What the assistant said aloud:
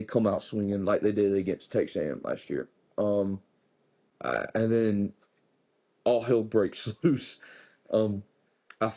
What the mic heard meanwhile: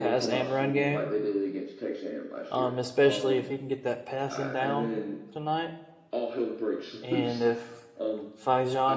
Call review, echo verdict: present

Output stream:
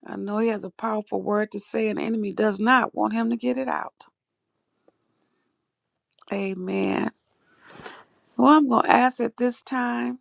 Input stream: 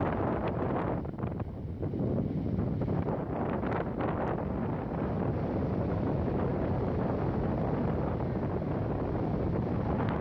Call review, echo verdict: none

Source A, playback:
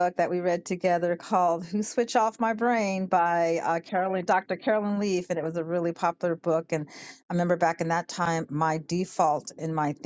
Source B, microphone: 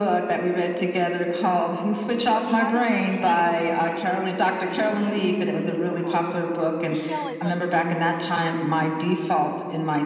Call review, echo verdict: present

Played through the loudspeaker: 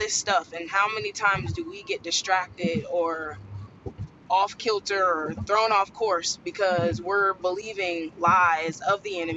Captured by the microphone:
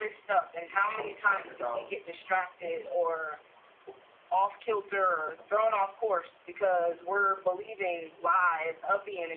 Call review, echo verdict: present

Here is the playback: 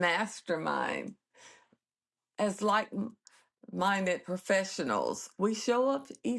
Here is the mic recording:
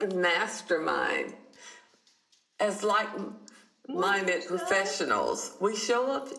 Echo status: present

